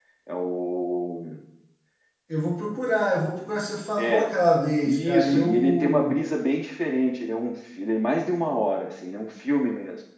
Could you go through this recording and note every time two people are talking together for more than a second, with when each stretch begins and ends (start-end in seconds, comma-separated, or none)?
4.8-6.2